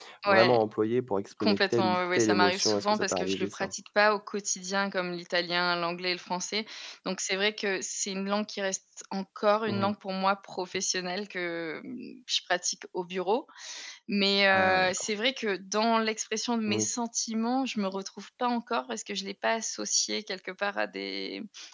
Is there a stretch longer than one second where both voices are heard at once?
Yes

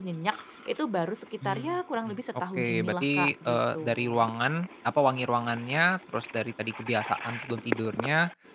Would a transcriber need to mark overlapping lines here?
Yes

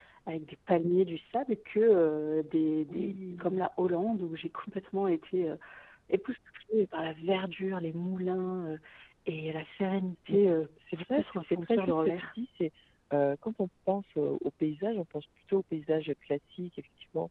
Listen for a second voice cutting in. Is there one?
Yes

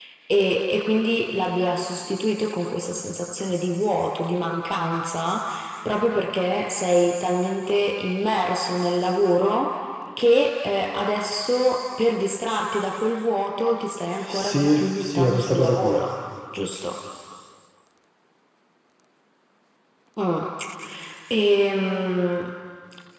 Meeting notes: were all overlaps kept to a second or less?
No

